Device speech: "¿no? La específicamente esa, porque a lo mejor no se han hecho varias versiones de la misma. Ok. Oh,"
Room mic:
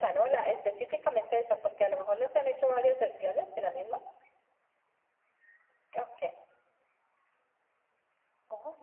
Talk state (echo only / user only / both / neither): echo only